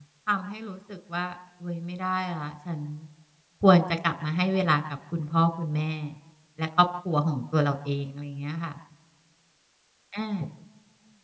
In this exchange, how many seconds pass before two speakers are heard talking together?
none

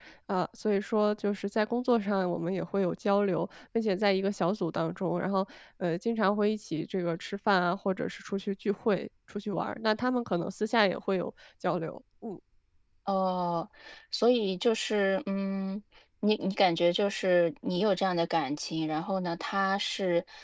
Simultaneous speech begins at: none

